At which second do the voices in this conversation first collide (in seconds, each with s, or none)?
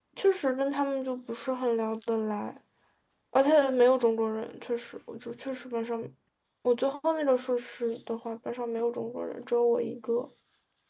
none